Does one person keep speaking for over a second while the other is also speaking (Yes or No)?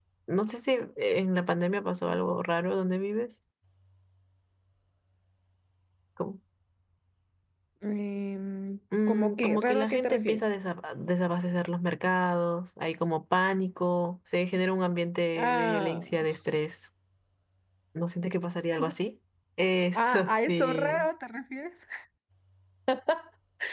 Yes